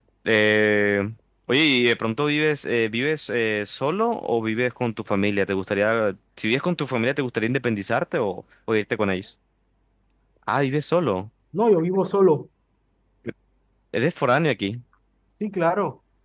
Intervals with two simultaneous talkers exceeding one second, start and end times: none

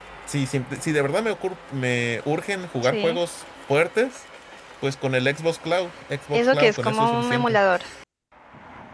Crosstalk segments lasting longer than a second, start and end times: 6.3-7.6

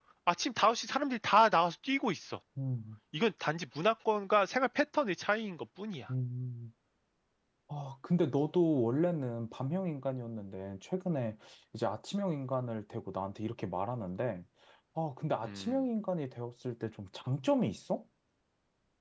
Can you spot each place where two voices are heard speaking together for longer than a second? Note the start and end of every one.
none

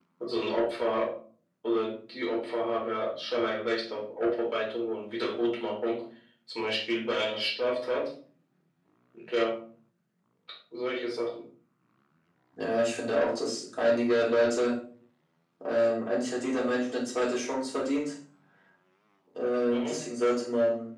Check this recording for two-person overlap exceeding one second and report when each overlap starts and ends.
none

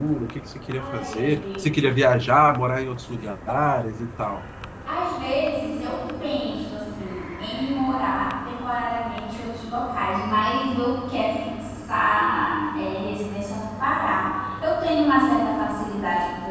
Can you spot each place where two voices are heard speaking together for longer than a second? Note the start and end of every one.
0.8-2.0

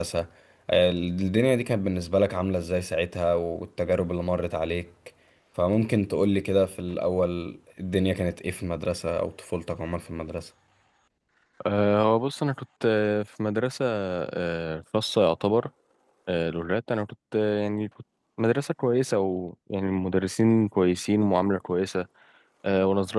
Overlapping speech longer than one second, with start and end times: none

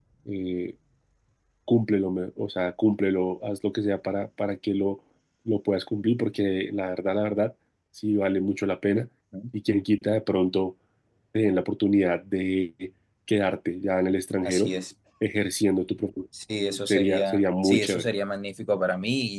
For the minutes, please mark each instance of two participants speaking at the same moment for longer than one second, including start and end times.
16.9-18.1

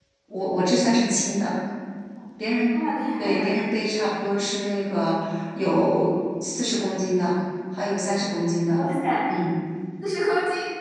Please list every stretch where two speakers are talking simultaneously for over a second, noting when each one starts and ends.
none

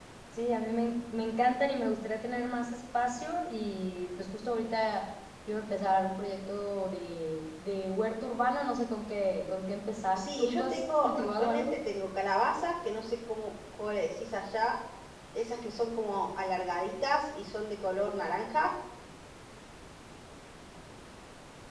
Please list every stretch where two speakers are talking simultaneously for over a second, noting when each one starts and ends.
10.2-11.7

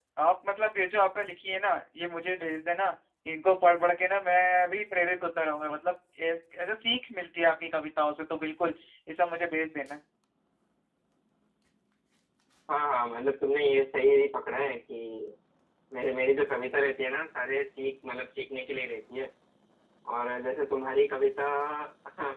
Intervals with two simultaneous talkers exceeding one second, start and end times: none

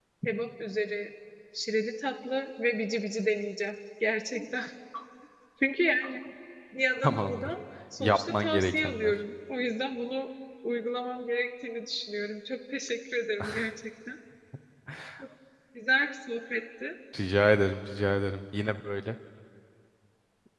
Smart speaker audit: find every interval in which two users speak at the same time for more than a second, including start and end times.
8.0-9.2

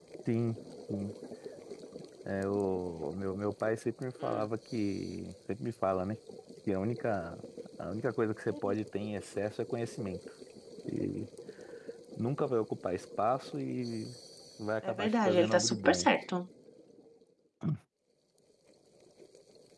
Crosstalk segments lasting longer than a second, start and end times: 14.9-16.1

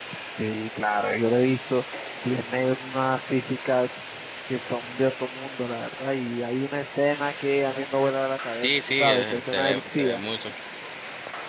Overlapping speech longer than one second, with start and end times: 8.6-10.2

